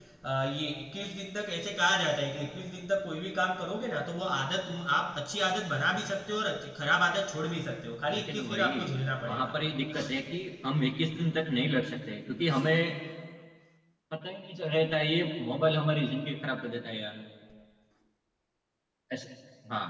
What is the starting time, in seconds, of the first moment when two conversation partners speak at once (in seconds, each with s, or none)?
8.1 s